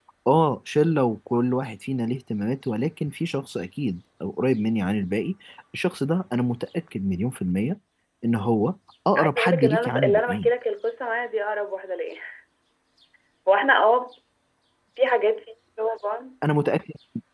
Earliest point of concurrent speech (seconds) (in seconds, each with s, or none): 9.2 s